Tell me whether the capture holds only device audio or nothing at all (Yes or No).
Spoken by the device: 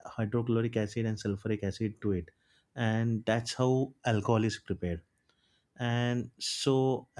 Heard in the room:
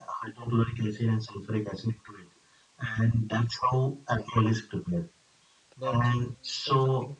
No